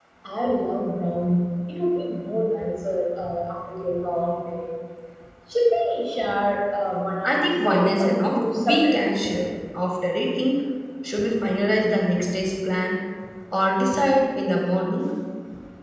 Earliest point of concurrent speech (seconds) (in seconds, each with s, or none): 7.2 s